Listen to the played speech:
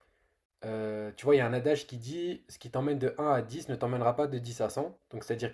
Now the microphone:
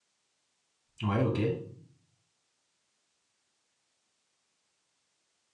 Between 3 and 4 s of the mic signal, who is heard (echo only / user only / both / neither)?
neither